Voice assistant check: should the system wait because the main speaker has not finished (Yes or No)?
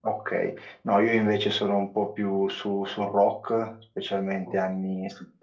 Yes